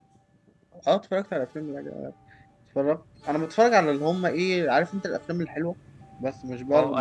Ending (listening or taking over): taking over